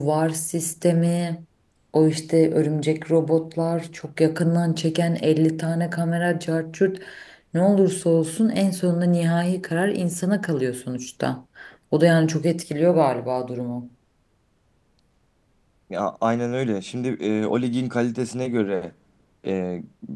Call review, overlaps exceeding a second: none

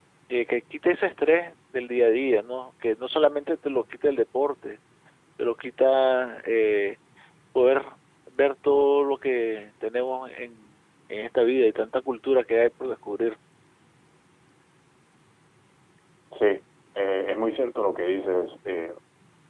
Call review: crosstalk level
none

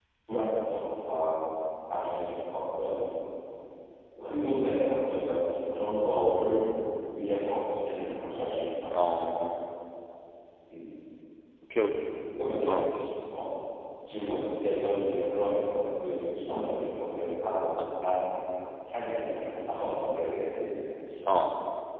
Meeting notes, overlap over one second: none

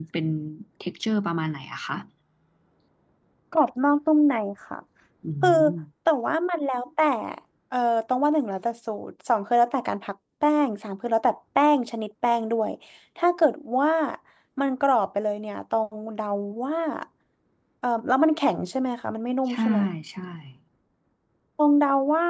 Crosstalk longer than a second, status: none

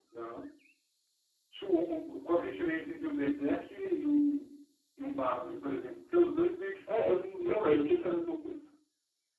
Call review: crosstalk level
present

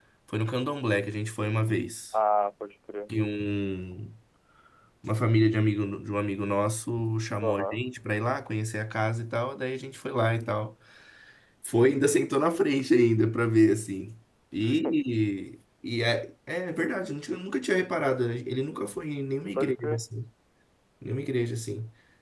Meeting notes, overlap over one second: none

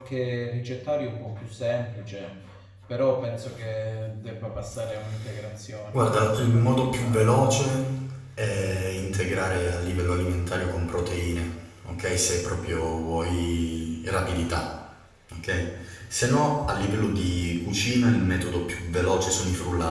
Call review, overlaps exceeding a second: present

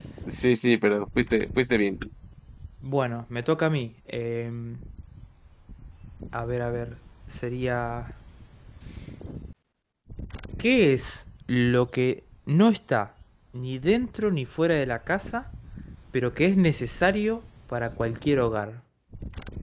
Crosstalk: none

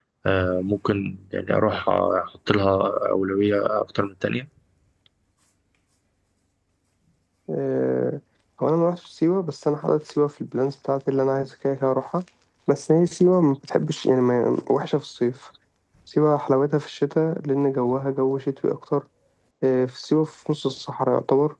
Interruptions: none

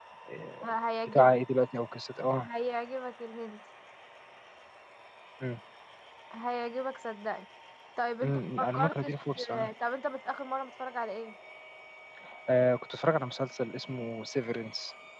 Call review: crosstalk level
present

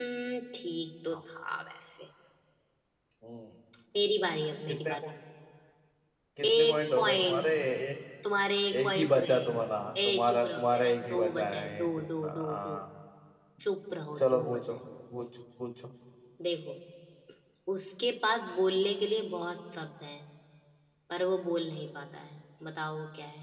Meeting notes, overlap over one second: present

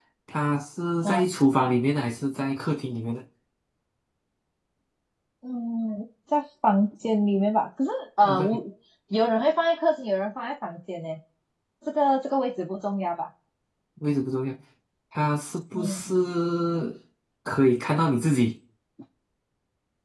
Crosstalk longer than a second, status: none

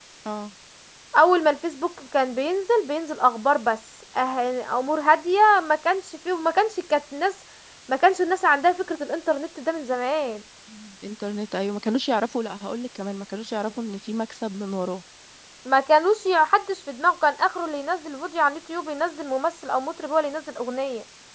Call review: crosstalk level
none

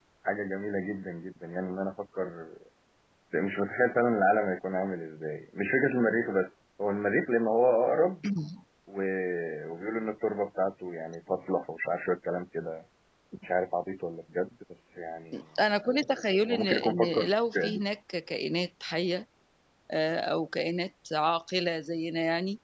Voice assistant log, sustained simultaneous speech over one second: present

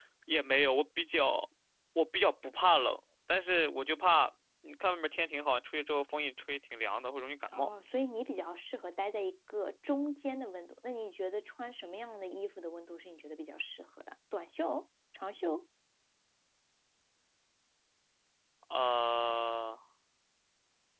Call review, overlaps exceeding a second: none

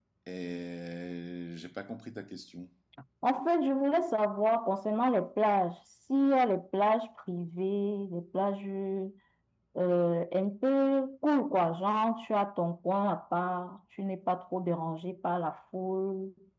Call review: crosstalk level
none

